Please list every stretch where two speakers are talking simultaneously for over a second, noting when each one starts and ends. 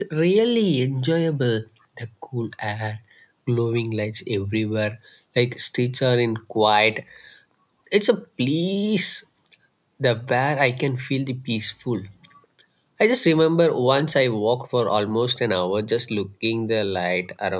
none

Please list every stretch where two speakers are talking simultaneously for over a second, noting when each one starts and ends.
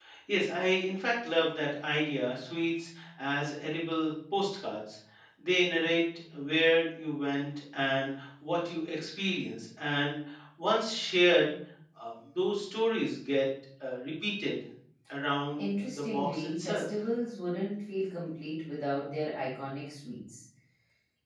15.6-16.9

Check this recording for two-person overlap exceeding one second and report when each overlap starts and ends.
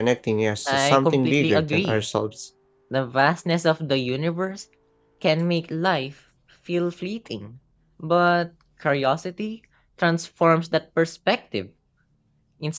0.7-2.0

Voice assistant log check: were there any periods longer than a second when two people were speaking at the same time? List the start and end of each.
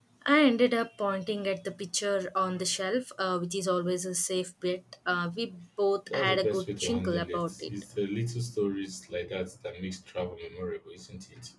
6.1-7.7

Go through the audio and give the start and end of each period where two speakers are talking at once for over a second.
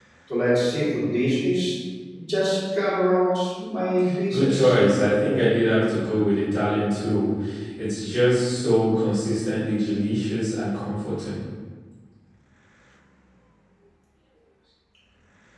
none

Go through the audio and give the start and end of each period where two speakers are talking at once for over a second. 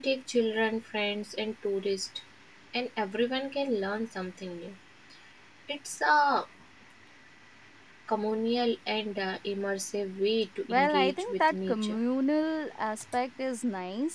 10.6-12.0

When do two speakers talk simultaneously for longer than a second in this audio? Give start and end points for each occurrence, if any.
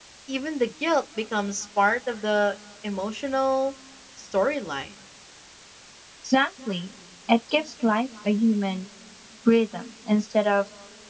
none

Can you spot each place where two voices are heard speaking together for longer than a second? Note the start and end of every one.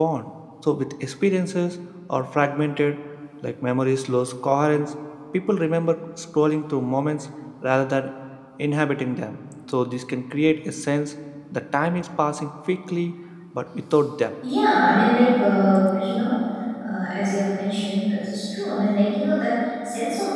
none

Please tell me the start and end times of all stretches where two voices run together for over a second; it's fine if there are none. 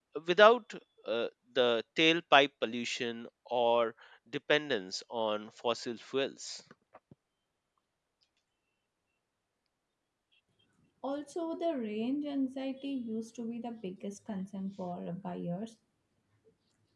none

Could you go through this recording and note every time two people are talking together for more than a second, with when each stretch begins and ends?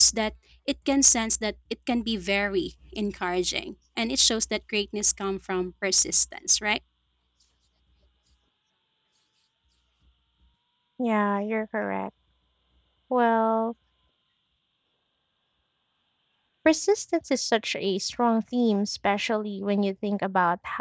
none

